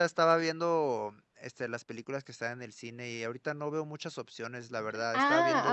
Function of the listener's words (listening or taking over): taking over